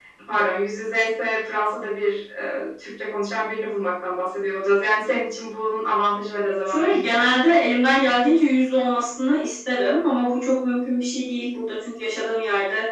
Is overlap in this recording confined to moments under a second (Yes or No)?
Yes